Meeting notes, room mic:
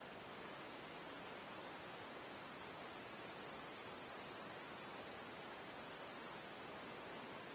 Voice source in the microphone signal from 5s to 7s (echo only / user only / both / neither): neither